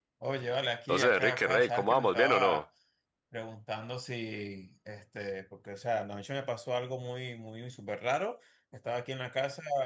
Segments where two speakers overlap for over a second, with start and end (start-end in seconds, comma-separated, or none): 0.9-2.6